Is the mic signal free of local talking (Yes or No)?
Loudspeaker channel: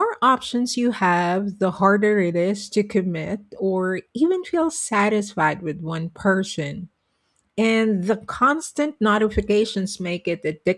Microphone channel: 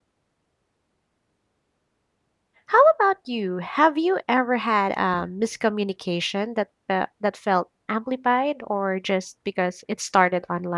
No